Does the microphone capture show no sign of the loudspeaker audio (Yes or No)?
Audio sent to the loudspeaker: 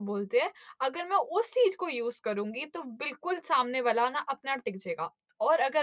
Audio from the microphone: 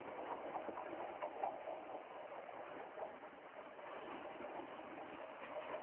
Yes